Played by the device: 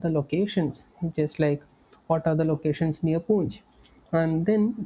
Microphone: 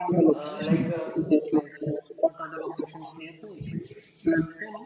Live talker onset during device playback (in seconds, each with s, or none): 0.3 s